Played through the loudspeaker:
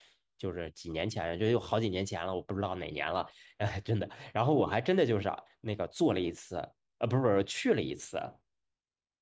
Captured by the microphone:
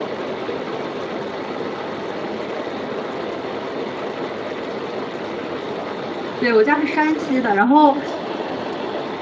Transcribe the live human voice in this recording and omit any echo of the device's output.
对，我家是山西的，然后

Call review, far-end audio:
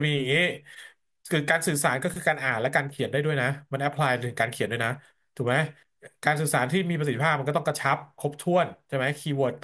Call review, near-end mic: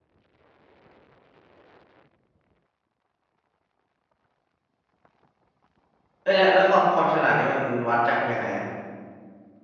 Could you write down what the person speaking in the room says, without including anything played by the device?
เอ้ยแล้วแล้วความความฉลาดนี่มันวัดจากยังไงอ่ะ

